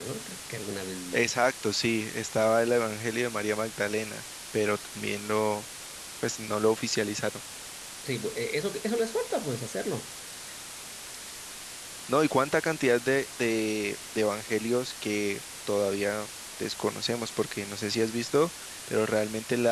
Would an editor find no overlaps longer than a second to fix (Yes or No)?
Yes